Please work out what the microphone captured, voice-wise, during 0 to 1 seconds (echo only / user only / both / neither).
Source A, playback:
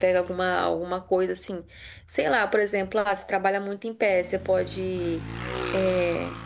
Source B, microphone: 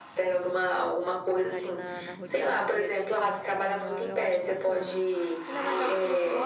echo only